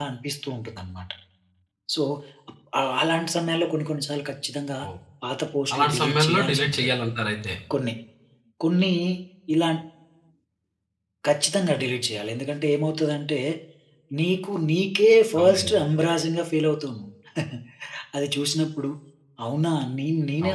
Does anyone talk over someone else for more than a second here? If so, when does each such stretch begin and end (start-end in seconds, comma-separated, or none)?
5.7-6.9